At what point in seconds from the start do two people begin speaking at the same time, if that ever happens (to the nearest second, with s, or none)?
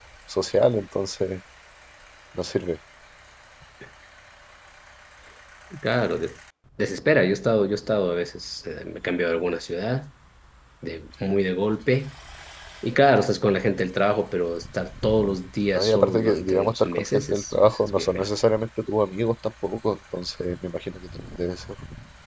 16 s